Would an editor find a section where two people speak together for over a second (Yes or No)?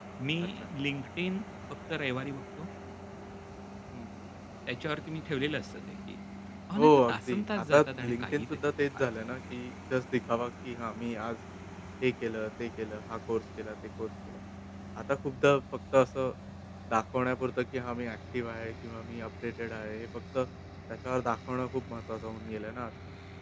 Yes